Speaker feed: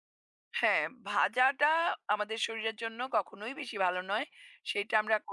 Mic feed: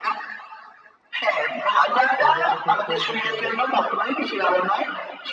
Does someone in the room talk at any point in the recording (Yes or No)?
Yes